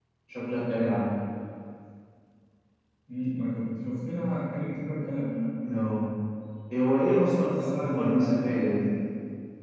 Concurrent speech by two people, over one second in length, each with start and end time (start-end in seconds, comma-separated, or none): 7.5-8.9